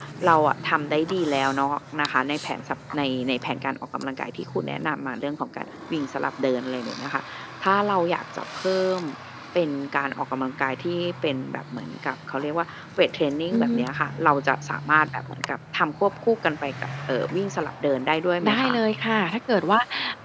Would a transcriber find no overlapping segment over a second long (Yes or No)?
Yes